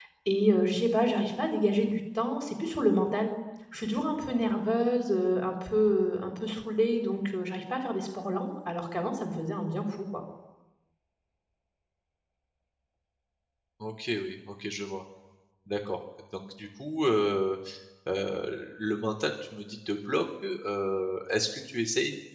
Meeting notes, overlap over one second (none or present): none